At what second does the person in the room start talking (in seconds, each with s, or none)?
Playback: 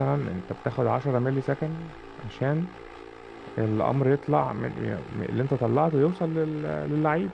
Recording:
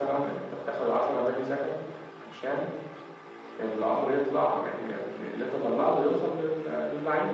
none